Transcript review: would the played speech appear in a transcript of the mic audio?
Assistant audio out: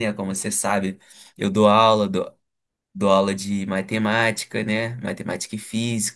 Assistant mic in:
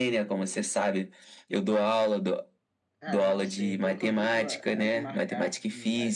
Yes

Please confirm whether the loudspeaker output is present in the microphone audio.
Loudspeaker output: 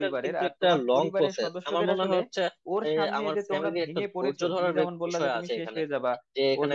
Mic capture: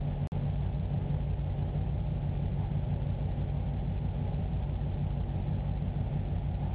No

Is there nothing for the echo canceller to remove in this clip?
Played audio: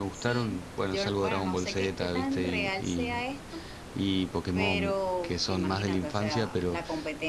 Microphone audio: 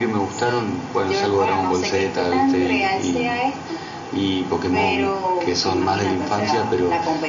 No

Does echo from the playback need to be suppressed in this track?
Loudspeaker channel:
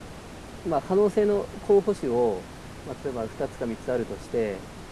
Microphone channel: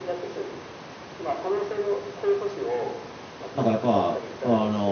Yes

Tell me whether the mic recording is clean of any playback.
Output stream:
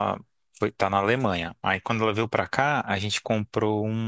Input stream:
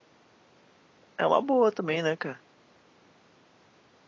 Yes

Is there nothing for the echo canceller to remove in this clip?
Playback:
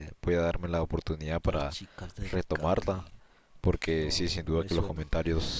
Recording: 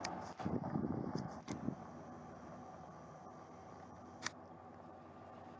Yes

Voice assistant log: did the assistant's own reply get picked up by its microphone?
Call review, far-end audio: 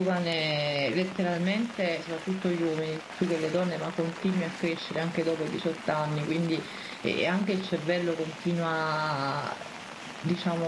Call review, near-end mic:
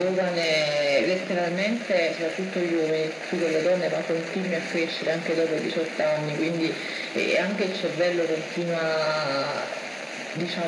Yes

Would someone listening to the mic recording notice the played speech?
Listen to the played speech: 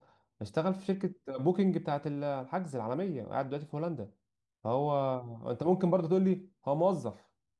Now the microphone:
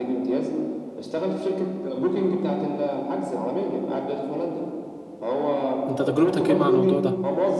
Yes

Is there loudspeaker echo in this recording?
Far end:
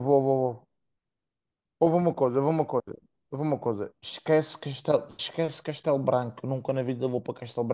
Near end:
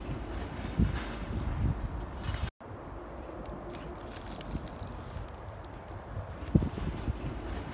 No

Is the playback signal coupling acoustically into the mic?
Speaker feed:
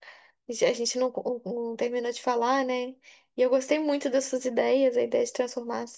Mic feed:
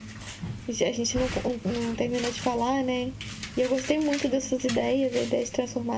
Yes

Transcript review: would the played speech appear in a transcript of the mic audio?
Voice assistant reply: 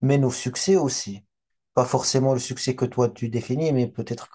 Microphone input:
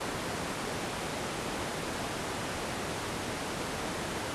No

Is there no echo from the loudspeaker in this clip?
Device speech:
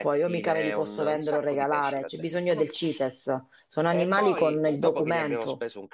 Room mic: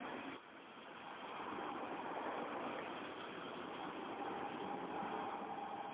Yes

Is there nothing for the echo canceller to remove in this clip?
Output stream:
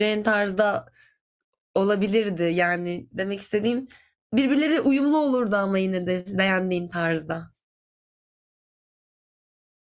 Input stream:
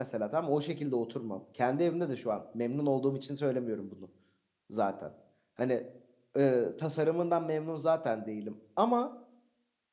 Yes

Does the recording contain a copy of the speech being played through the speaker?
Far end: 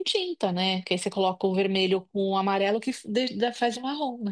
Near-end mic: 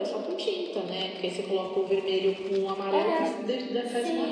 Yes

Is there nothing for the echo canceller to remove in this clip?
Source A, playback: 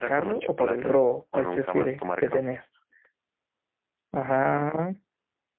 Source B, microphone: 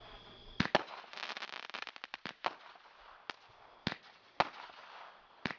Yes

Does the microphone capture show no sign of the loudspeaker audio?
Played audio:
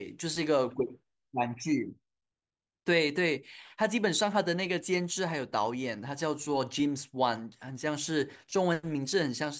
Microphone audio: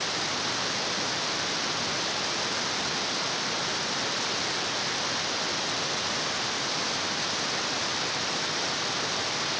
Yes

